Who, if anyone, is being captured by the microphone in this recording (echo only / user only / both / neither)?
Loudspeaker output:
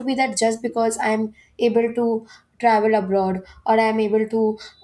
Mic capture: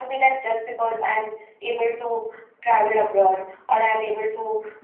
echo only